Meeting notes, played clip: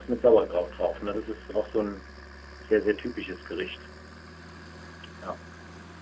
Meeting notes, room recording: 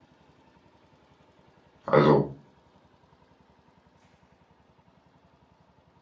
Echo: none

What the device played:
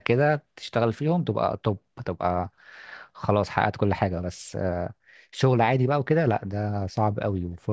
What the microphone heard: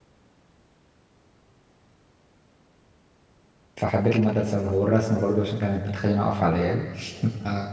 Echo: none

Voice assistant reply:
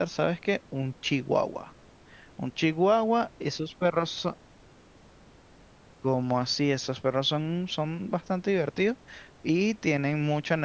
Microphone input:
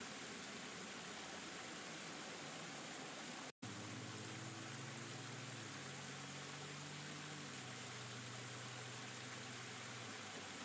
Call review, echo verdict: none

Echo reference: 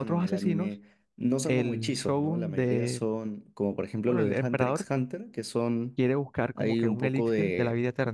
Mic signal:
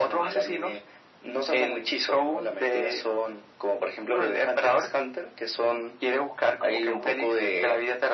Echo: present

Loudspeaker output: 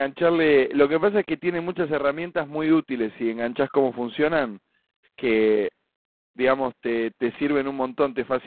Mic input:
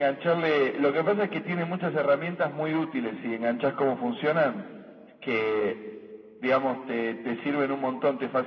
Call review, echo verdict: present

